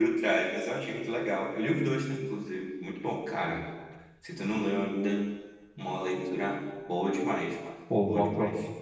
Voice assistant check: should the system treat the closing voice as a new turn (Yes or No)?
Yes